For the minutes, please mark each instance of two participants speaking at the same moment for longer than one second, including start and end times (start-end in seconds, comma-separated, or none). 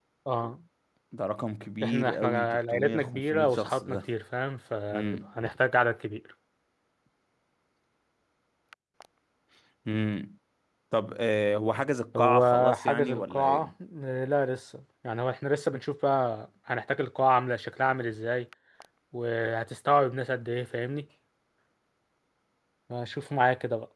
1.8-4.0, 12.1-13.7